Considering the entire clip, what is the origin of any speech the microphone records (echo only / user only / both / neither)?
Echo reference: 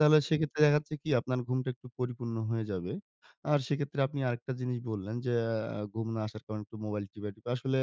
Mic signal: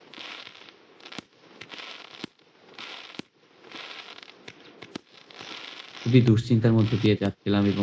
user only